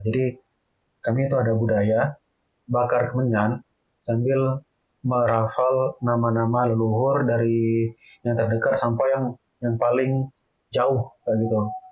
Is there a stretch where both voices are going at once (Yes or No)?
No